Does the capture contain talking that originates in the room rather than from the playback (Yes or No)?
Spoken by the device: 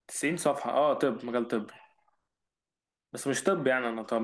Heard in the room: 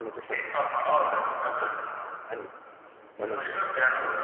Yes